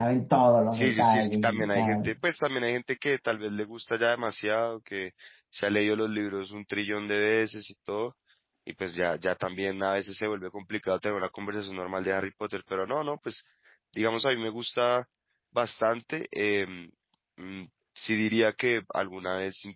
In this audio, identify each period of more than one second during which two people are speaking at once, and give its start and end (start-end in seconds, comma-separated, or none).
0.7-2.1